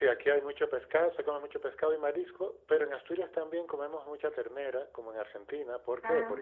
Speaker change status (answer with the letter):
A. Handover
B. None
B